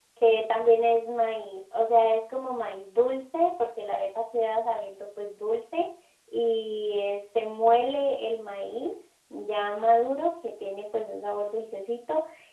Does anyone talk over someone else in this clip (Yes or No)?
No